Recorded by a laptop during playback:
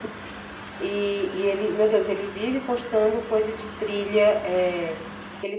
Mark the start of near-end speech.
none

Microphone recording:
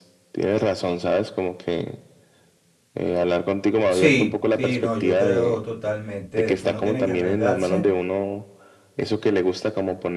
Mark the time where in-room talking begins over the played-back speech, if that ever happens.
3.9 s

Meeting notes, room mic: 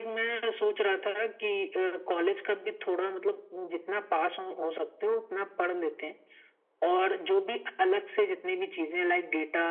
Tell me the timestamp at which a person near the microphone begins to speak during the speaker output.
none

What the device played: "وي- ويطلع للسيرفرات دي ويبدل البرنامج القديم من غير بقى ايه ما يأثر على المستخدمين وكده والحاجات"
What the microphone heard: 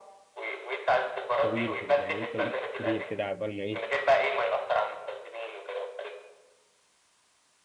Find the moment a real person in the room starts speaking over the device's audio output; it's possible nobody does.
1.4 s

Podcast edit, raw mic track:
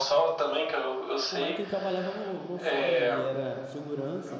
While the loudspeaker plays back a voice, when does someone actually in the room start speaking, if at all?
1.3 s

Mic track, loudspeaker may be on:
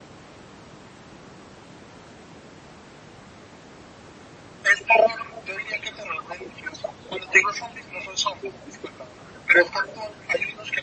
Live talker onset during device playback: none

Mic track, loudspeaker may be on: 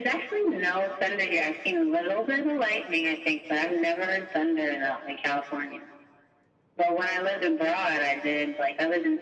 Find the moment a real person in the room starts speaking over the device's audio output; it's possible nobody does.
none

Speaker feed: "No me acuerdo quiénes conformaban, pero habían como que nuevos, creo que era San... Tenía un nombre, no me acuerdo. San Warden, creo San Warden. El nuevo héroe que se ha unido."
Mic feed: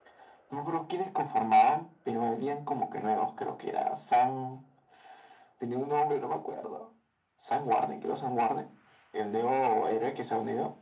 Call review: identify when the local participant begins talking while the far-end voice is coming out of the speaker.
none

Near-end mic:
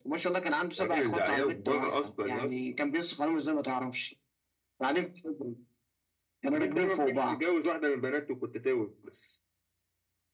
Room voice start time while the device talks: none

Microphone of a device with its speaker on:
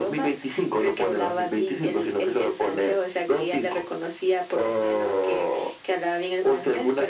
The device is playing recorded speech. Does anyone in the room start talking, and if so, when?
none

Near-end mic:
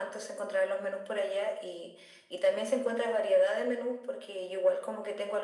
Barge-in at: none

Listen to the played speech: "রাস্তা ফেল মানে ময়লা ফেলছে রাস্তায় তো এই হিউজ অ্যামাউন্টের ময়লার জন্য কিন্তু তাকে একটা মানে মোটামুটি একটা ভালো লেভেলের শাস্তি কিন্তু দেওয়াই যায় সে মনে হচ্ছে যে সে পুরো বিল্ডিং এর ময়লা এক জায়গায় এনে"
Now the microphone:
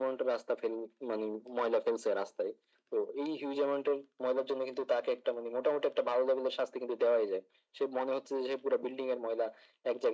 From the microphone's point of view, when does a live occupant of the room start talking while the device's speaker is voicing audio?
none

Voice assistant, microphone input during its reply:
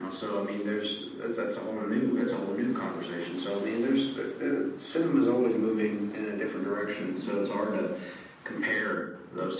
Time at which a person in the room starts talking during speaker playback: none

